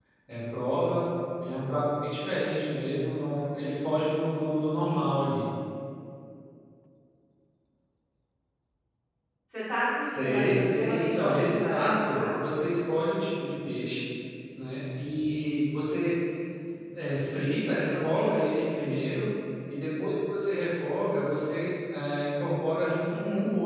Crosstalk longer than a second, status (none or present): present